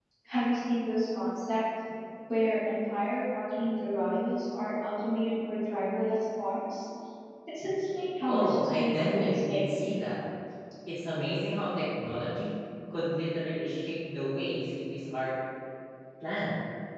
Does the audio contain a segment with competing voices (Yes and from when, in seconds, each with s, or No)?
Yes, from 8.2 s